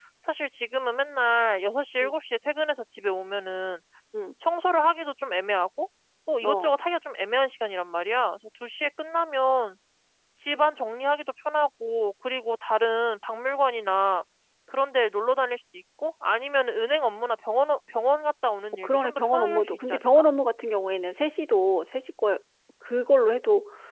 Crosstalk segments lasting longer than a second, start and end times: 18.8-20.2

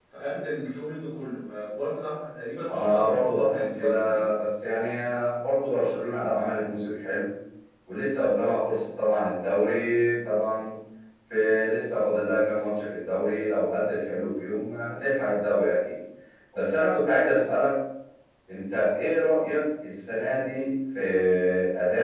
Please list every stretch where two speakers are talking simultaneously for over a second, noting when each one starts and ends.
2.7-4.2

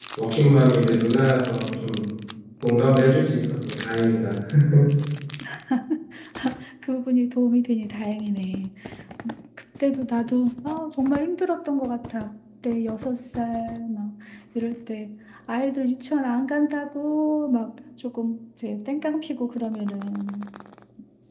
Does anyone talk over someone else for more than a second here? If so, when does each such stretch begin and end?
none

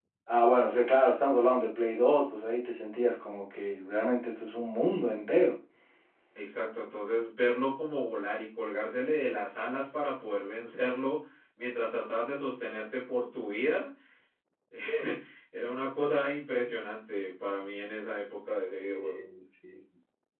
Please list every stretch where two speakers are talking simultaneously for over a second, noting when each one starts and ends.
none

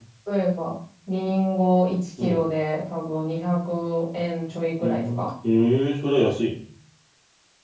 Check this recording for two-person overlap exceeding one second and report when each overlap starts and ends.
none

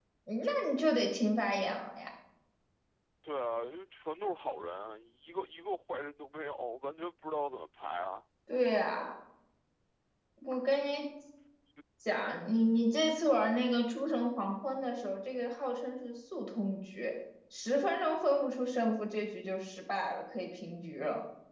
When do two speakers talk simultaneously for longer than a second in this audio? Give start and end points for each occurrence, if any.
none

